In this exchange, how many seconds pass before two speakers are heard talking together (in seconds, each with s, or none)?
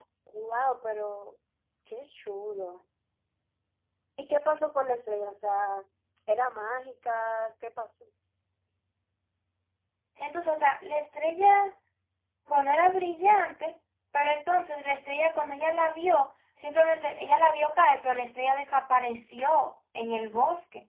none